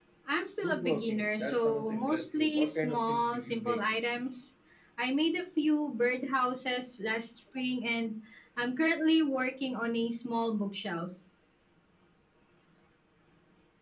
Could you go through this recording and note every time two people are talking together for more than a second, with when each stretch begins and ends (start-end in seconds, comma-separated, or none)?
0.6-3.8